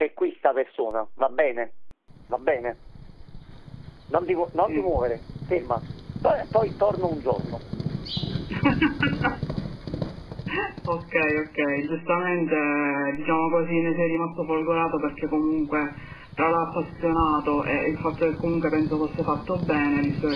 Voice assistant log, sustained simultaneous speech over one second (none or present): none